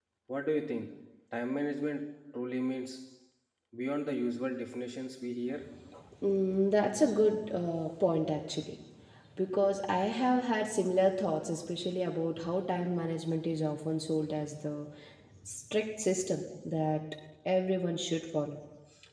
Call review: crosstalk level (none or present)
none